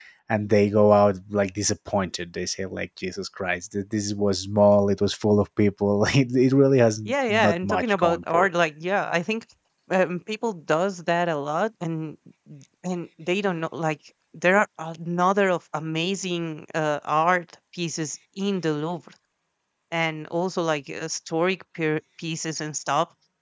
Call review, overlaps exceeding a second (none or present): present